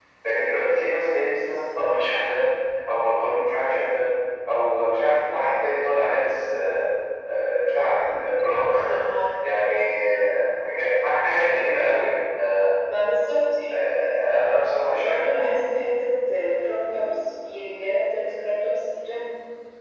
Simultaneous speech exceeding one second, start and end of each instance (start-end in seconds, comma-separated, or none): none